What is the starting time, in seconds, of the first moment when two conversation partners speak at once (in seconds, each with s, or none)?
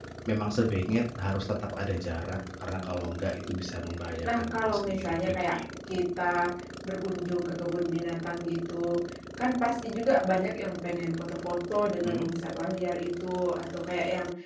4.2 s